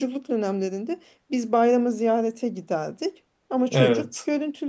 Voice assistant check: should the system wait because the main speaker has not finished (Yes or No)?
Yes